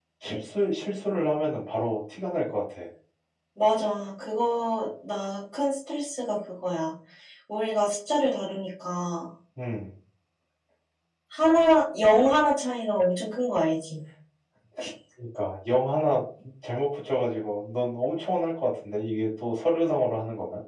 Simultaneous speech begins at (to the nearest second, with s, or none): none